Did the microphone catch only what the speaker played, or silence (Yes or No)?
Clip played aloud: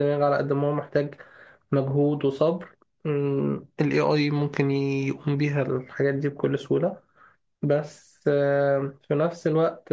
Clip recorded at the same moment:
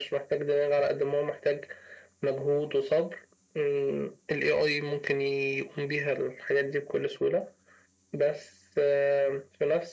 Yes